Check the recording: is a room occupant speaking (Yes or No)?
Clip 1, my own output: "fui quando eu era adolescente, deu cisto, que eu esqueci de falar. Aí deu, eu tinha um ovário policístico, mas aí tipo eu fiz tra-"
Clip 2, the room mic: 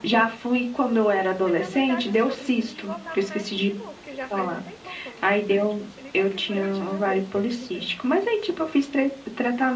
Yes